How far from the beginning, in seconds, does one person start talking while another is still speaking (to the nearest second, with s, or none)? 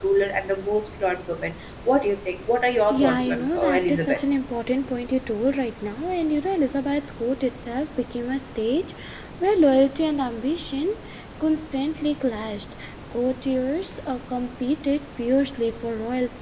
3 s